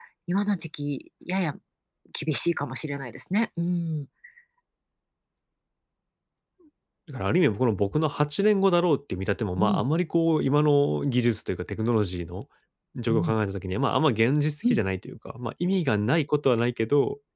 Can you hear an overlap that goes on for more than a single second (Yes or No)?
No